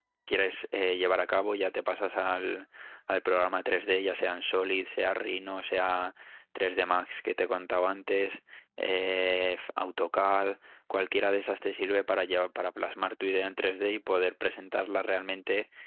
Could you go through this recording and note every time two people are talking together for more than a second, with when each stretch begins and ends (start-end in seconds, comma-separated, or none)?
none